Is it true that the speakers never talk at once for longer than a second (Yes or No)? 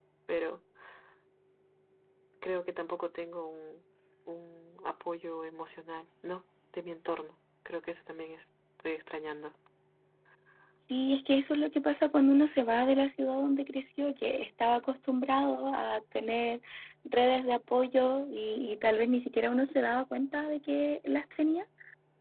Yes